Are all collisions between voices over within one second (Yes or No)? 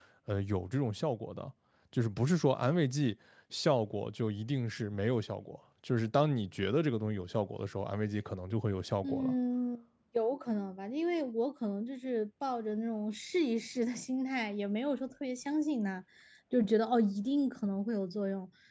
Yes